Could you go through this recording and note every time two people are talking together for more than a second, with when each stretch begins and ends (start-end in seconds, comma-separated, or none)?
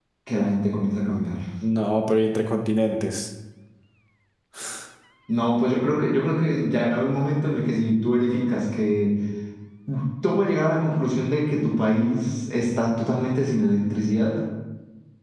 none